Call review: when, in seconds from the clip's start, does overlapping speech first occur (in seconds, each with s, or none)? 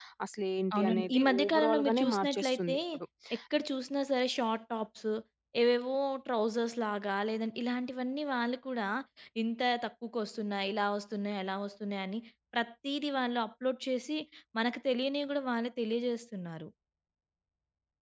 0.8 s